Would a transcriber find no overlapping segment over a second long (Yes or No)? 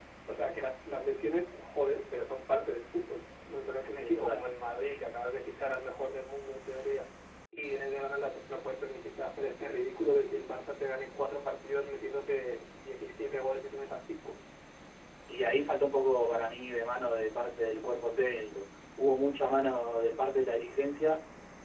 Yes